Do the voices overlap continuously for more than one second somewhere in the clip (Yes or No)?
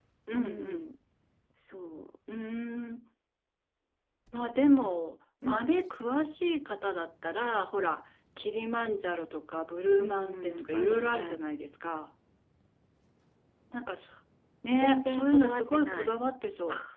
Yes